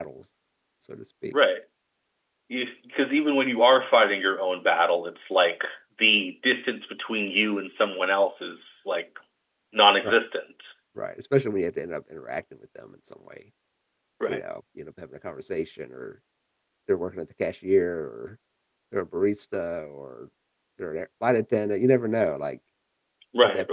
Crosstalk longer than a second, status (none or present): none